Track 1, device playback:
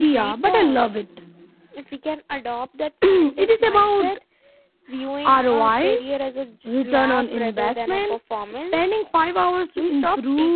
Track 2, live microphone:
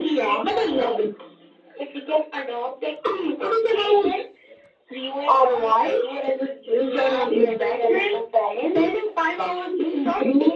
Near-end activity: none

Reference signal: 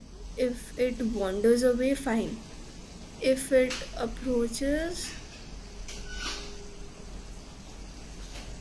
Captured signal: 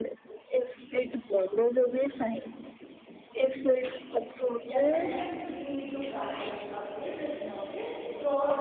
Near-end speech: present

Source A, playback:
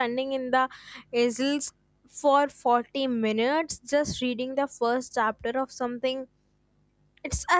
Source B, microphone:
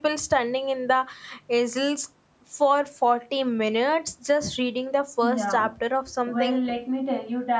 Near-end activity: present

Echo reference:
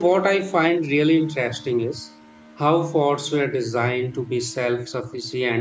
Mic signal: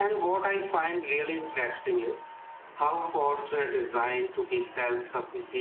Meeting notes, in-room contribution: none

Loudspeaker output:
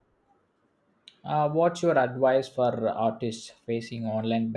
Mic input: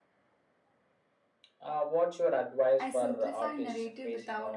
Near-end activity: present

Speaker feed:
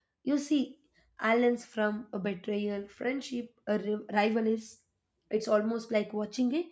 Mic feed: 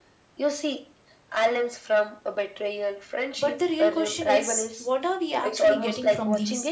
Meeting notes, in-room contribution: present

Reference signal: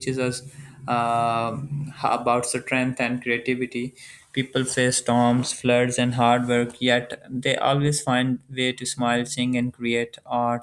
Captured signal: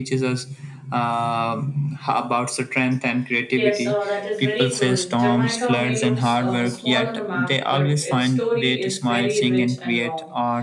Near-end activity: present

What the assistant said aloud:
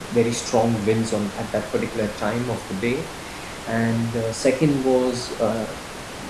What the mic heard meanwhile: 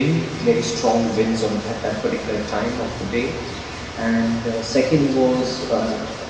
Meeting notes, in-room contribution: none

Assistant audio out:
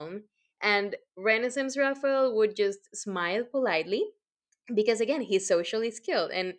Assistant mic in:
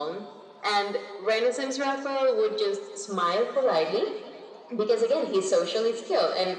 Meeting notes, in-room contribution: none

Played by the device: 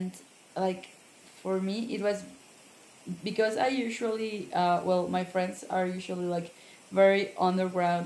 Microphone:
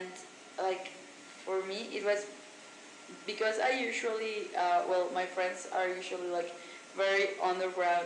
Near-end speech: none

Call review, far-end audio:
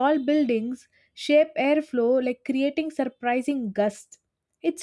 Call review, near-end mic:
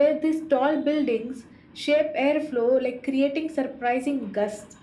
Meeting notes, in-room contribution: none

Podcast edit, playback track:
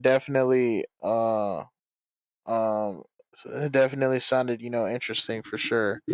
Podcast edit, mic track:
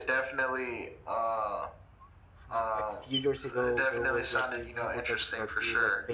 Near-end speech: present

